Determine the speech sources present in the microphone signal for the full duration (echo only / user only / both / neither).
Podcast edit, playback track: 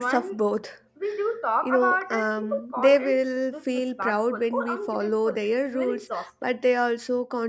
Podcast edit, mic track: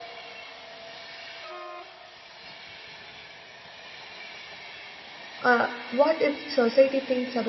user only